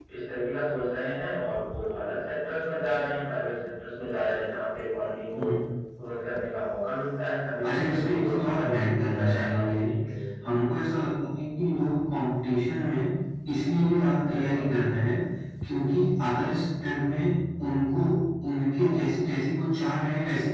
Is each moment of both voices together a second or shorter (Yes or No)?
No